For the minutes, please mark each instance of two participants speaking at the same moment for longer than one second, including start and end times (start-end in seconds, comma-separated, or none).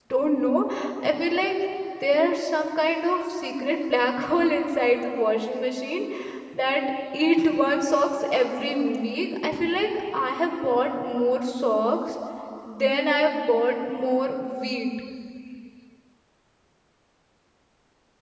none